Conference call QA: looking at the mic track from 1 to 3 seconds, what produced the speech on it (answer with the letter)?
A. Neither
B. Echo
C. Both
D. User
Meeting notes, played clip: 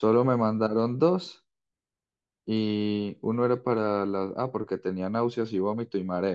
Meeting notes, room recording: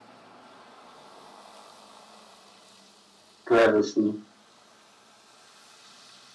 A